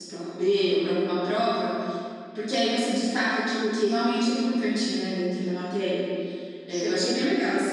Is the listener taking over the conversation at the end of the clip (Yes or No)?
No